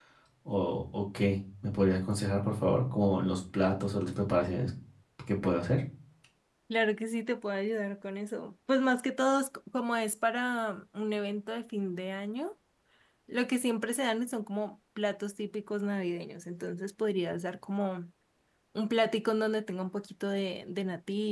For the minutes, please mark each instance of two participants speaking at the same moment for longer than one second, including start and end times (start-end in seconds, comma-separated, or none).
none